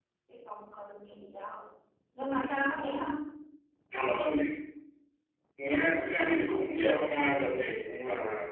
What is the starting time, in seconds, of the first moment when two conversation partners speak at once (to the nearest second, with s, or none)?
none